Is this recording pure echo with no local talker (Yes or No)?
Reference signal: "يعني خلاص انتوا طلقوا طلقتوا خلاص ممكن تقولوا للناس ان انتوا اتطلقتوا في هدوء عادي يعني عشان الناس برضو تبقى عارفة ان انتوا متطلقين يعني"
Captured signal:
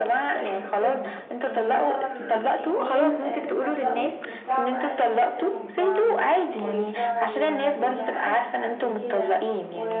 No